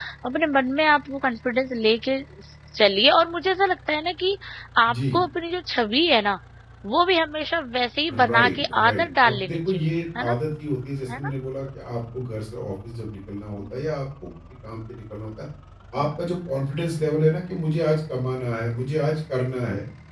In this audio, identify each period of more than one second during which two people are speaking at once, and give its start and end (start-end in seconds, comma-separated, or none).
8.1-10.3